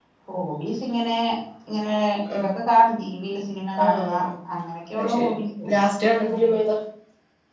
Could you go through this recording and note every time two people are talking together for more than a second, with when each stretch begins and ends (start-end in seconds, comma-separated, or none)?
none